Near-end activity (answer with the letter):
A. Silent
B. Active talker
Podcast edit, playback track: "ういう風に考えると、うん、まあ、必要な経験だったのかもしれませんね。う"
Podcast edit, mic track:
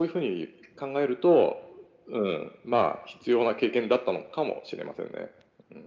A